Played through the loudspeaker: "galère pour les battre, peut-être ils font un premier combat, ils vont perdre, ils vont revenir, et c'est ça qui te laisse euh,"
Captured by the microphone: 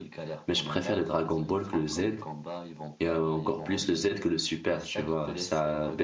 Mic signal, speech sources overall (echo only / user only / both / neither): both